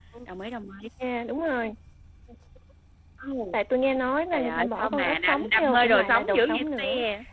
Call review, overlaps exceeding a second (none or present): present